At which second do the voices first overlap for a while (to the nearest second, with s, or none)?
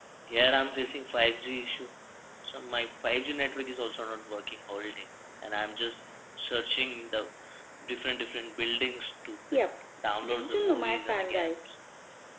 10 s